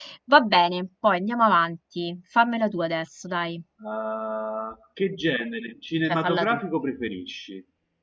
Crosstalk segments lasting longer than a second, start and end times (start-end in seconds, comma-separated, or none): none